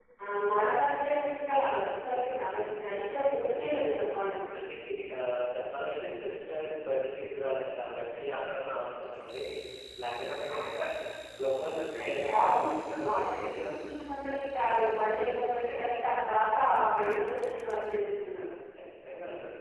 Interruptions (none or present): present